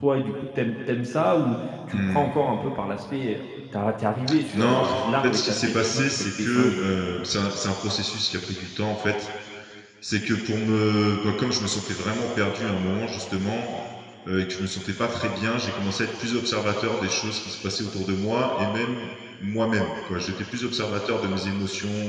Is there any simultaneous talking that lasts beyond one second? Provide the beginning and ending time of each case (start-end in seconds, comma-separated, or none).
4.5-6.8